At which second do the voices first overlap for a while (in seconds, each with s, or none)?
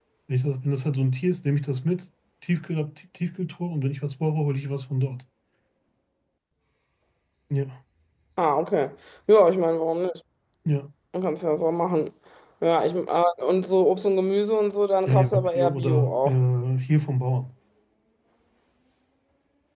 15.1 s